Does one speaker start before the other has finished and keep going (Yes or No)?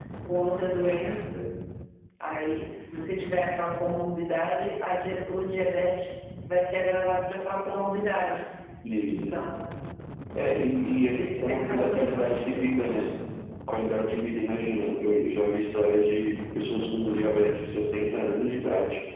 Yes